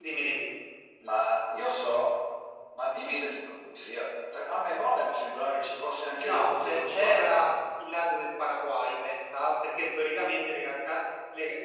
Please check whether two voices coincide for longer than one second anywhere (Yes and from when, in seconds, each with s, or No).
Yes, from 6.2 s